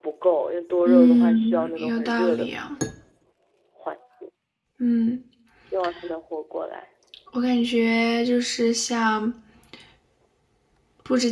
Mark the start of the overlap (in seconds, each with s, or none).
0.8 s